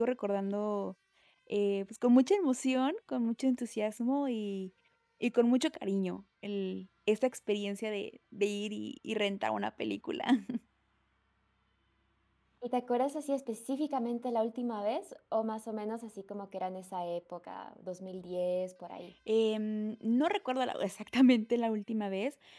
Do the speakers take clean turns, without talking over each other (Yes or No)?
Yes